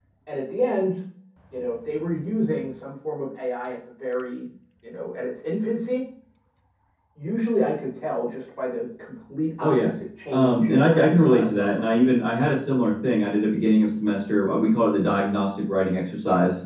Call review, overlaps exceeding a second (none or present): present